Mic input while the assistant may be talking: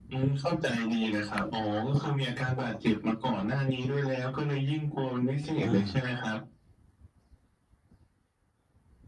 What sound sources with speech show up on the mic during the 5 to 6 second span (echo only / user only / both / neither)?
both